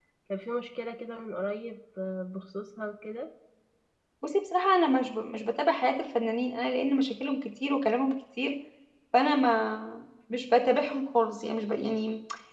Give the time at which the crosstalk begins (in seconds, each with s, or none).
none